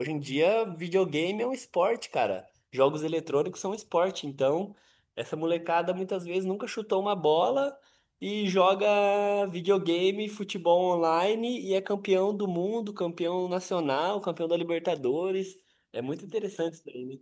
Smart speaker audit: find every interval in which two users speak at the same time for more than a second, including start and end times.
none

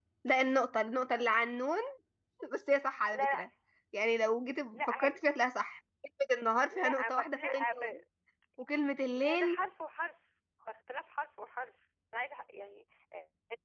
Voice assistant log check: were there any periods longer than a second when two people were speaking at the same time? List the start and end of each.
6.7-7.9

